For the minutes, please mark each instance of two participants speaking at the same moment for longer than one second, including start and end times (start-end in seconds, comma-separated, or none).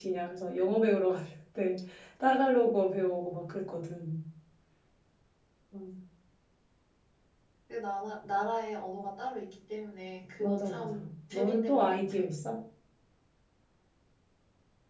10.4-12.2